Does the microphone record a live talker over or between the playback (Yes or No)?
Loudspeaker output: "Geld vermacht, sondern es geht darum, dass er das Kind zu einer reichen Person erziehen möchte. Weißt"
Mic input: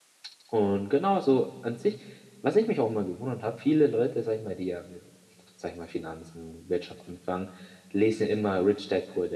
Yes